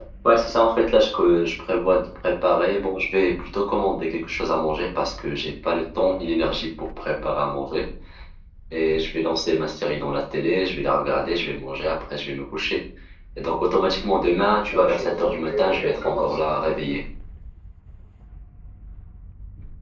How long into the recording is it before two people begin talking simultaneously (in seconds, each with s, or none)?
14.7 s